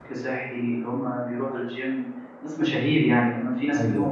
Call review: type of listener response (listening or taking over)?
listening